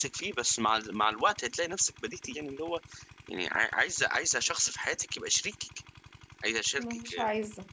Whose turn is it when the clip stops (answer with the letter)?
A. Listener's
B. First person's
A